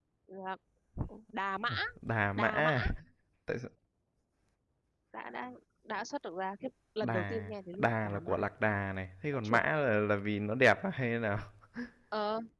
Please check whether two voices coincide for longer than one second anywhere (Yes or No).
Yes